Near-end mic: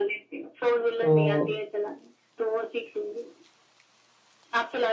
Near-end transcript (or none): तो